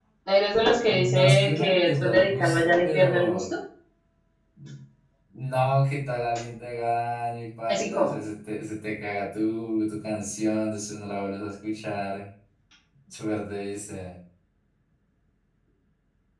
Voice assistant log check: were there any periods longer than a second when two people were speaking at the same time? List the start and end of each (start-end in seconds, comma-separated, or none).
0.8-3.4